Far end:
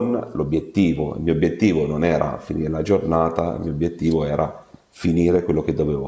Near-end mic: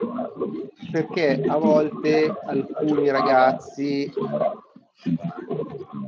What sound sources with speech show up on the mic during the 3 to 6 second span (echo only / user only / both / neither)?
both